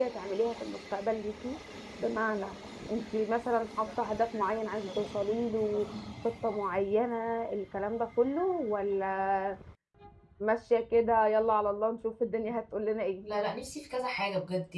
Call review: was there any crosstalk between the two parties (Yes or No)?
No